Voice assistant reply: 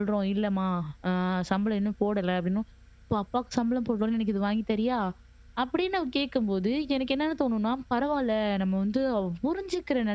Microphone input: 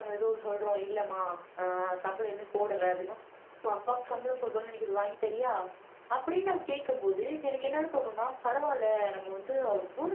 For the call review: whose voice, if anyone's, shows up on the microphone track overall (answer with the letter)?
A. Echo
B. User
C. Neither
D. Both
A